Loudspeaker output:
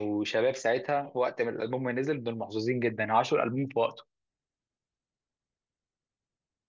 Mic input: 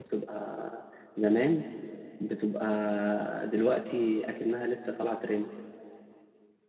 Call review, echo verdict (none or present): none